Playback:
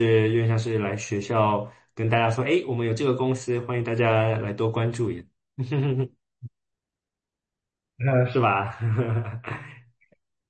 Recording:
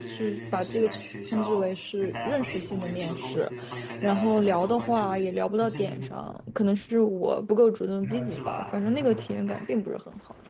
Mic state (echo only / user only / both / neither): both